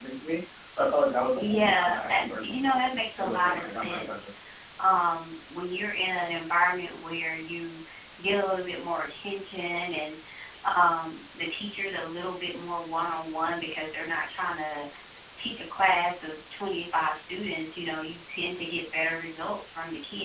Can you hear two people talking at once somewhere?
Yes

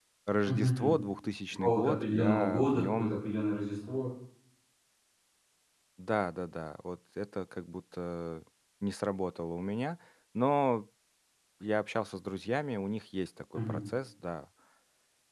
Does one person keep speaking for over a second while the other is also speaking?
Yes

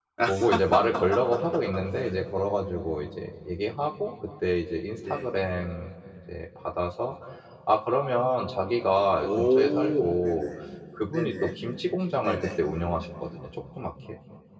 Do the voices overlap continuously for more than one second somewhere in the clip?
Yes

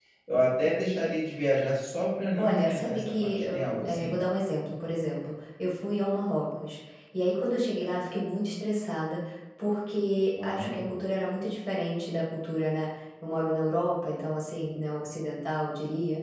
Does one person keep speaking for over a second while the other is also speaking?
Yes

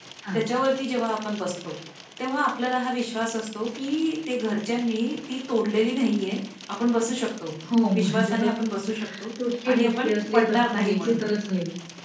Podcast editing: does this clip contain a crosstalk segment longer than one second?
Yes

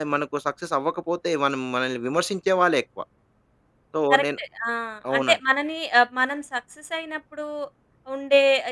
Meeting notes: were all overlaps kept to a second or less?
Yes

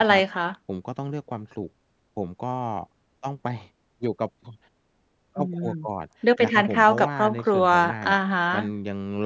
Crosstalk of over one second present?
Yes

